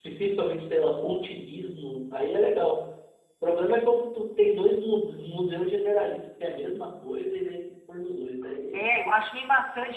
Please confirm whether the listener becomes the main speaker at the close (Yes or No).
Yes